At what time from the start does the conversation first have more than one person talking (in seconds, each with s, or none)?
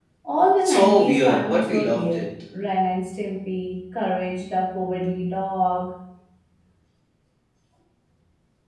0.6 s